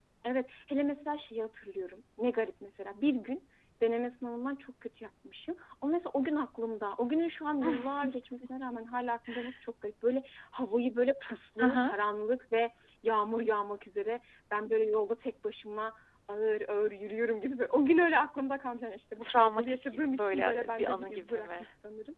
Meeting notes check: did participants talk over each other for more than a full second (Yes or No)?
Yes